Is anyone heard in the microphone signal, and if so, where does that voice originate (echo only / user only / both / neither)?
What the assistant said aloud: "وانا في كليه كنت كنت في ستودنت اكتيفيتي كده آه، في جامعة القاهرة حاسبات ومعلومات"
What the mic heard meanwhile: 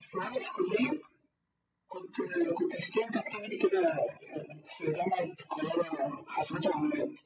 echo only